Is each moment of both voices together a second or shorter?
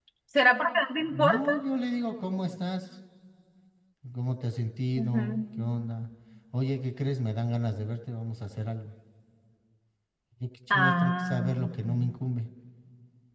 No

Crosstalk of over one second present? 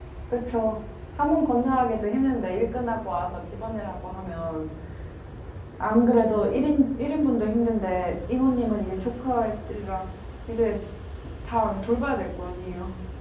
No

